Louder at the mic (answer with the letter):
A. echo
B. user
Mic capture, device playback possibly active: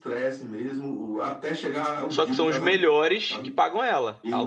B